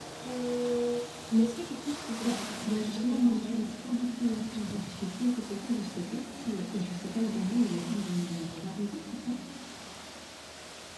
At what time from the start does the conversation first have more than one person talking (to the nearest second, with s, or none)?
2 s